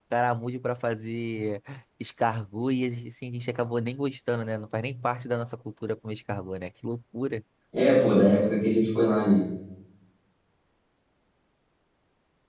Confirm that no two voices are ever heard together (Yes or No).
Yes